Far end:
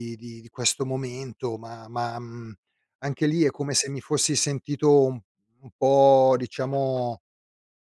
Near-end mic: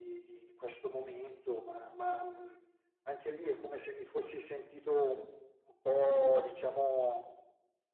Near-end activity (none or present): none